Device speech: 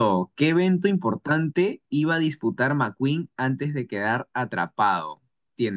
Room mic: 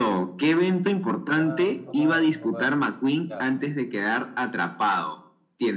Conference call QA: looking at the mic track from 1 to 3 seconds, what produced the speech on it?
both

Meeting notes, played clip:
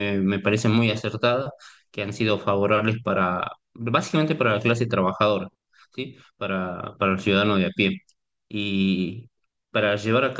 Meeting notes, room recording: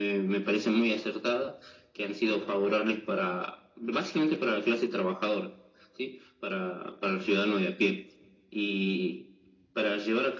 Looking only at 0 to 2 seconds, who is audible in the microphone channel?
echo only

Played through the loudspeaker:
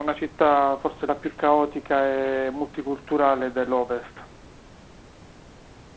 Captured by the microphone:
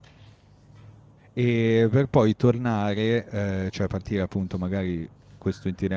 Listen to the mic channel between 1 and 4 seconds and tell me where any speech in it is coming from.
user only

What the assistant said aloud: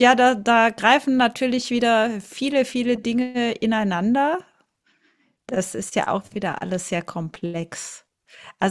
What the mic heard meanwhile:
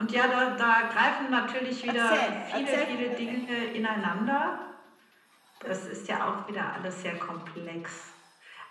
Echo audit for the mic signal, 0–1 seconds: echo only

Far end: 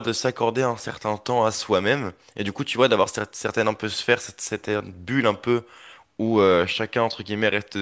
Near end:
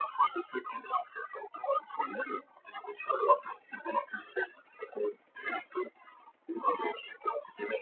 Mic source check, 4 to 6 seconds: echo only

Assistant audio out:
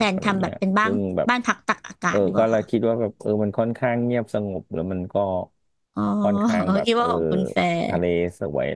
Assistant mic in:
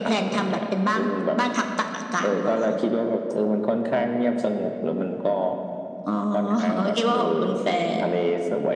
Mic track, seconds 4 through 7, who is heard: echo only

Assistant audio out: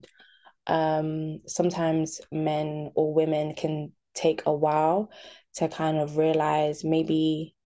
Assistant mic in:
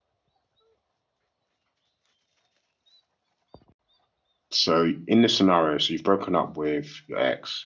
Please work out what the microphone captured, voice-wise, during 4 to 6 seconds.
user only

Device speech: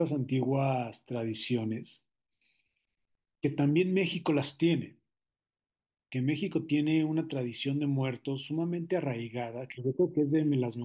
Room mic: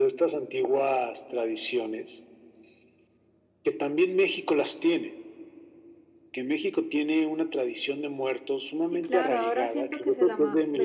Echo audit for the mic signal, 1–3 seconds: echo only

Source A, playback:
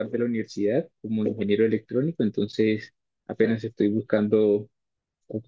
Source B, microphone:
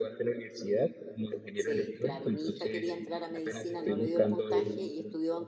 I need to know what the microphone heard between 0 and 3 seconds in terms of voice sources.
both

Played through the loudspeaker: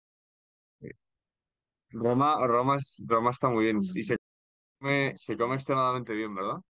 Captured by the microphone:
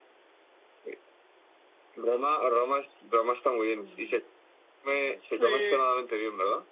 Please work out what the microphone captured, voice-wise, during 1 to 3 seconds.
echo only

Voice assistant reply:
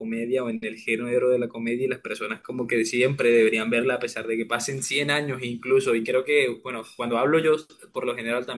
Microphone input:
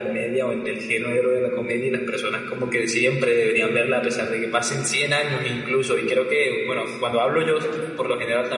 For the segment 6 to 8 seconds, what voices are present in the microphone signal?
echo only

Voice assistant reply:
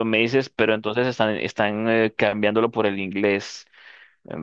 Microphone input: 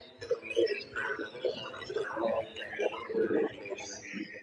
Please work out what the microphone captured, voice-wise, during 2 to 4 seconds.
echo only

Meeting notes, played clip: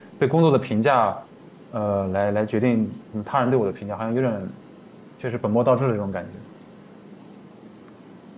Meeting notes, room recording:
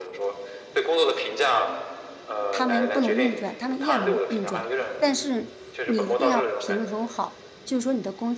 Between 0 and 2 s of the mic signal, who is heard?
echo only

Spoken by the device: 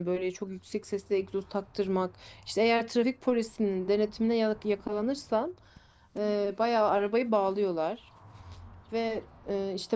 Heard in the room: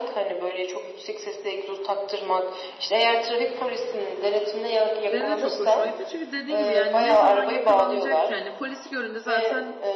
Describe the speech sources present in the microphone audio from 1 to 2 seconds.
echo only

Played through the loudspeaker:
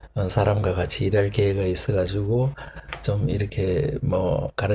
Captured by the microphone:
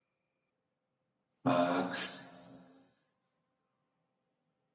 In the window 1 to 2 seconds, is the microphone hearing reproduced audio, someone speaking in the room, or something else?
user only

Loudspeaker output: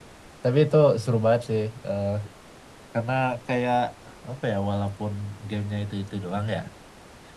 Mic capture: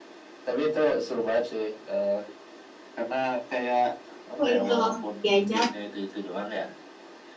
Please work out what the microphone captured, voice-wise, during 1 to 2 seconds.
echo only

